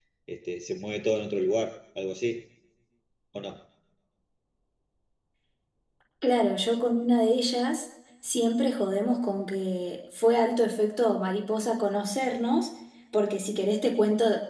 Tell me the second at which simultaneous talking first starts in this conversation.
none

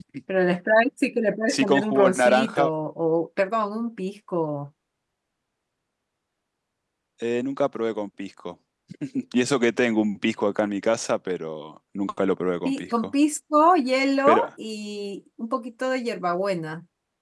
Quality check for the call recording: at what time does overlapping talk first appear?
1 s

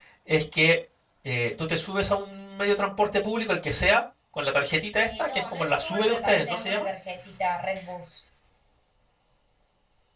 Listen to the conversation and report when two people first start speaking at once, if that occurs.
5 s

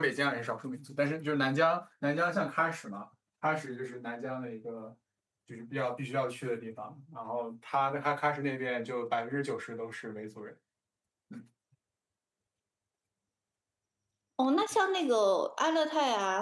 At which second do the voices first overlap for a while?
none

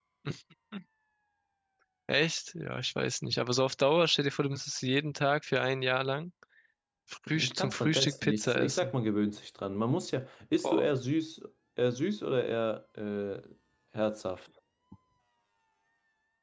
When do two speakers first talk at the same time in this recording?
7 s

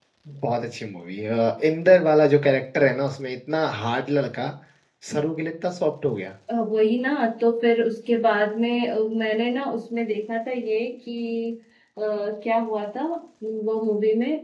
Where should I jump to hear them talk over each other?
none

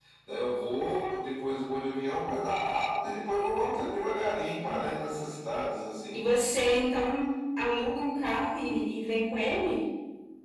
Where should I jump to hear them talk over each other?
none

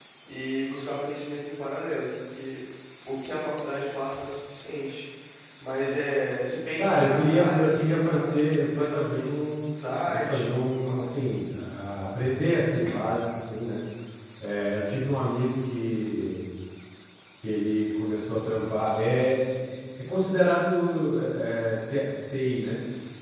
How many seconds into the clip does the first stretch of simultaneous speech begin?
7 s

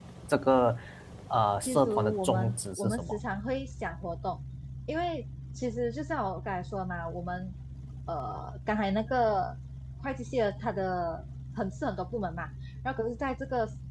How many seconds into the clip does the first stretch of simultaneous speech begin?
2 s

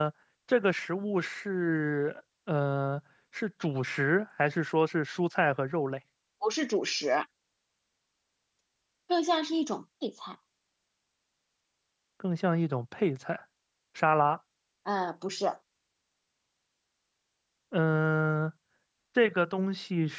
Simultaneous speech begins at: none

